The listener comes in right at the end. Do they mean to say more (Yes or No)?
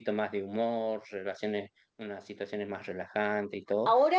Yes